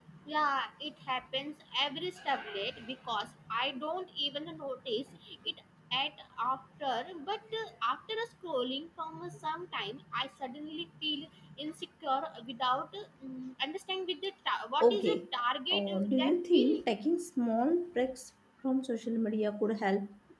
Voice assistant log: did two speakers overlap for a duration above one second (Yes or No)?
Yes